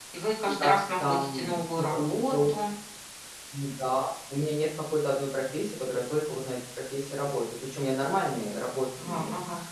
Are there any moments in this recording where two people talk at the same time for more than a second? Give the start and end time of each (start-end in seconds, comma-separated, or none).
0.6-2.5